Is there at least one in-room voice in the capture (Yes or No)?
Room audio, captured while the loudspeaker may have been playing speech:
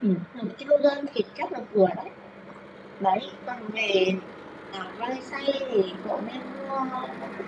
No